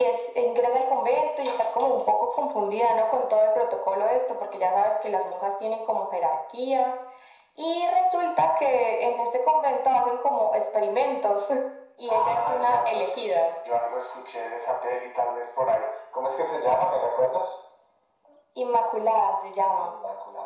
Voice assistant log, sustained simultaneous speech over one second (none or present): present